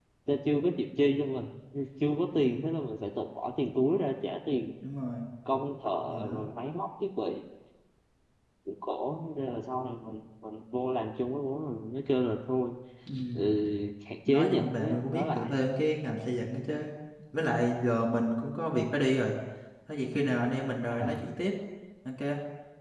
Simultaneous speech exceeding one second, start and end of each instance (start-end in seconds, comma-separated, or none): 14.3-15.6